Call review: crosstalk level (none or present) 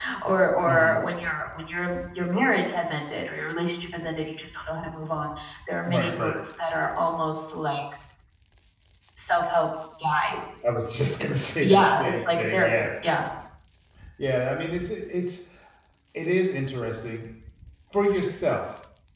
present